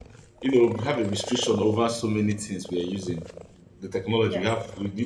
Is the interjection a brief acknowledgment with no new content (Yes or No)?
Yes